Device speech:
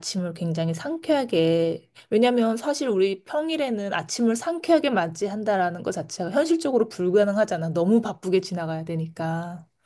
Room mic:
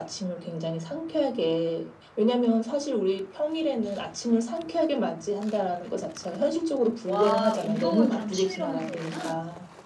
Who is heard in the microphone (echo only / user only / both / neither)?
both